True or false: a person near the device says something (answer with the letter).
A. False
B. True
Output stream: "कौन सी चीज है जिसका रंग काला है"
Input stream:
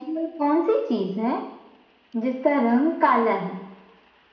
A